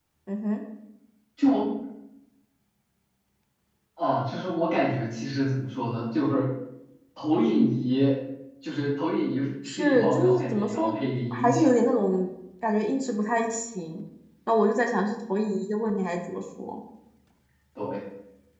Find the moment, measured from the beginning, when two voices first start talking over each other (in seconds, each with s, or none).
9.7 s